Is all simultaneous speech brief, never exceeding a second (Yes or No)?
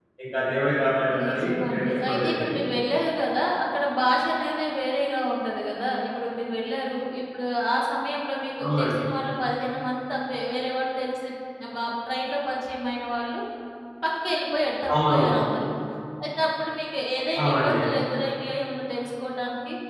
No